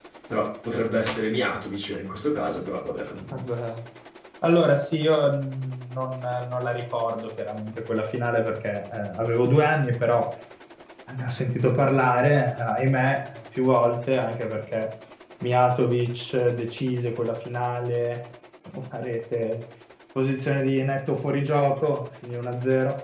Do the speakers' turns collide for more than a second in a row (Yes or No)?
No